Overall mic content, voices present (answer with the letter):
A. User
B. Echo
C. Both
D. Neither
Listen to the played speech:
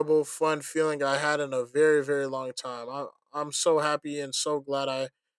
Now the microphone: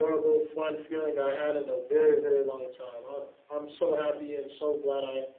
B